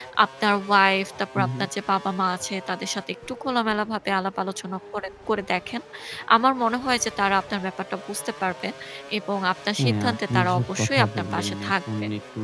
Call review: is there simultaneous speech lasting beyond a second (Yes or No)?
Yes